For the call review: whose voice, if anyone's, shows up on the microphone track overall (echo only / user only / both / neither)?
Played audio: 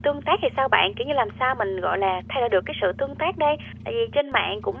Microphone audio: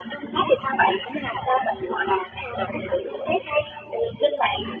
echo only